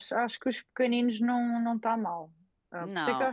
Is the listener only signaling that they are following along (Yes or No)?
Yes